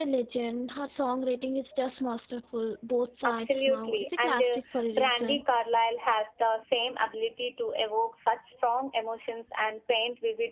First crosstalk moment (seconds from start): 3.2 s

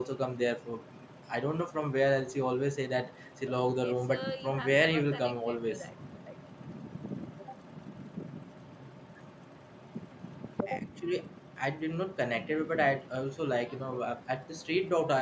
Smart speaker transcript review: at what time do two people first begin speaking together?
3.5 s

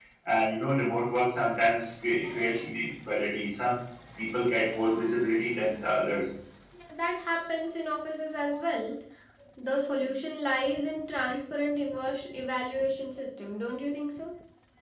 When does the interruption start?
none

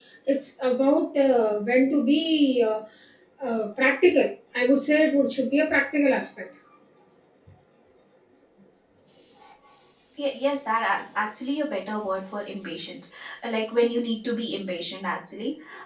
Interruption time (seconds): none

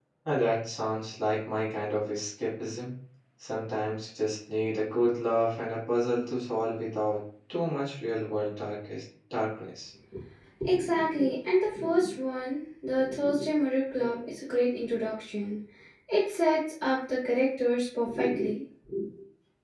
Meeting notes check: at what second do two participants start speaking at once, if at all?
none

